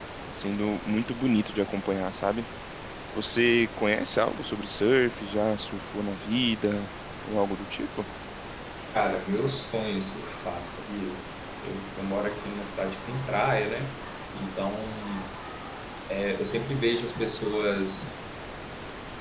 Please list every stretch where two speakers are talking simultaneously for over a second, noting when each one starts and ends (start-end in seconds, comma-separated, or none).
none